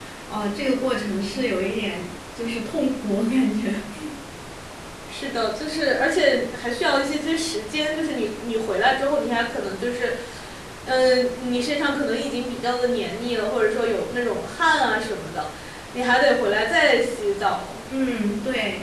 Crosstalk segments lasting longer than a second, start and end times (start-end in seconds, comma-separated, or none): none